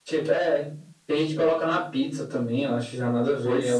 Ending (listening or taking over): taking over